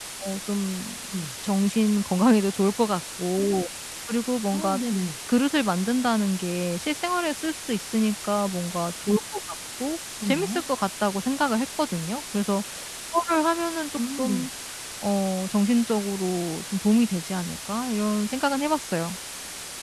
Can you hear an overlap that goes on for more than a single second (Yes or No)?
No